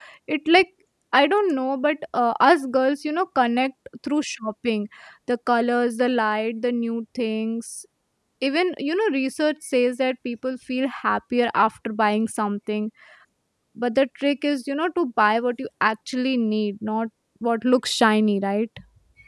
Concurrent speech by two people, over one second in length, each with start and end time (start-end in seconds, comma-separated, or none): none